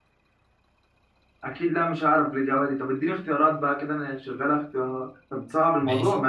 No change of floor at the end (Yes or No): No